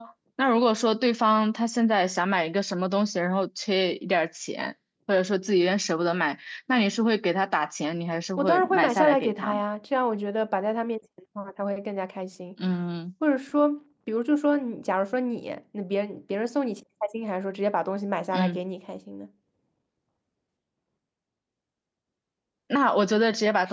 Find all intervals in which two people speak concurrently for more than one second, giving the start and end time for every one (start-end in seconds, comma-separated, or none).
8.4-9.6